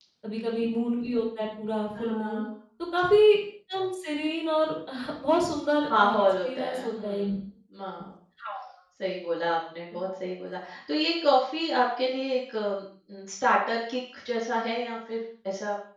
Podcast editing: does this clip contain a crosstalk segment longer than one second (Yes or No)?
Yes